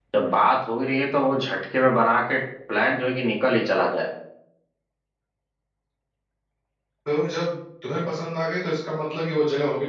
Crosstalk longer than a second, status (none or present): none